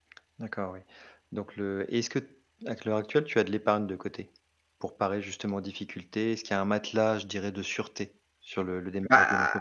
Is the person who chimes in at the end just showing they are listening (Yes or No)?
No